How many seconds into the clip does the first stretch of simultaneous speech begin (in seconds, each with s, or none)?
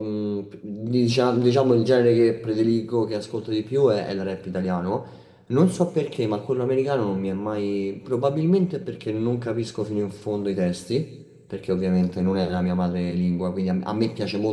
none